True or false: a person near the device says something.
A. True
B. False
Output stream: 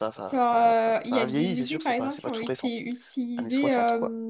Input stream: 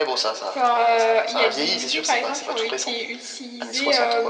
B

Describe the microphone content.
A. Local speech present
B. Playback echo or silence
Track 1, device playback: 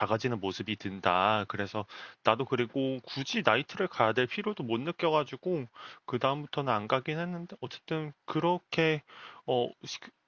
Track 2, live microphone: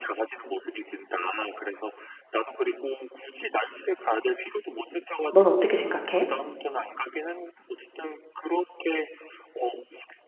A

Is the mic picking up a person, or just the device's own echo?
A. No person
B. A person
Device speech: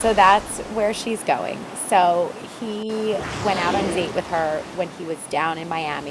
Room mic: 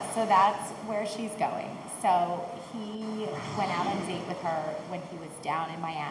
A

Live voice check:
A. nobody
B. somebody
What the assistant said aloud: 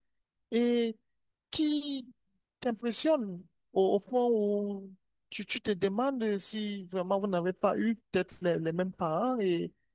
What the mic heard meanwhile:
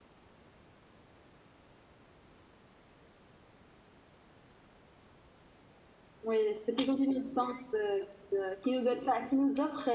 B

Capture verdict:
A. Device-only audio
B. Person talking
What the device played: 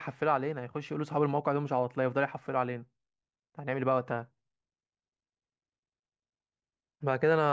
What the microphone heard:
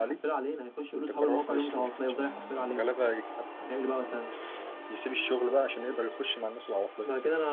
B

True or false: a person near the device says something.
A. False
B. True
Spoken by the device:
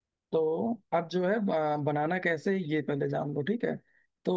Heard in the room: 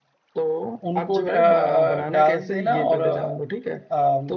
B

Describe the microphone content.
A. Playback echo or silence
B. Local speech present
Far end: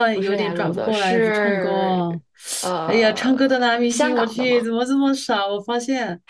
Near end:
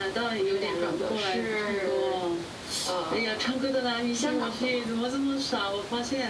A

